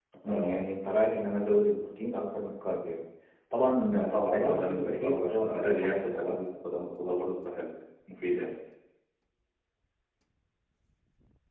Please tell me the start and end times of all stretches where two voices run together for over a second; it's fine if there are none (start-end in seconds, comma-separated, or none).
3.9-6.4